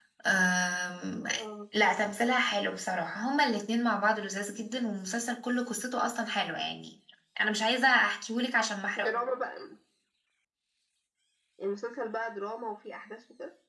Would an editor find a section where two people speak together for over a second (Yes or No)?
No